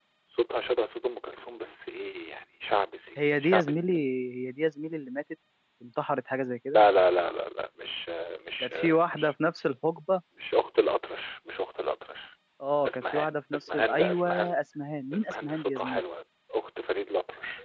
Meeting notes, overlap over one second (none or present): present